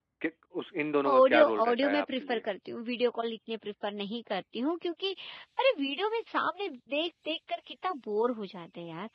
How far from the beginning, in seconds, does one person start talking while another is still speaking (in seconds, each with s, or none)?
1.1 s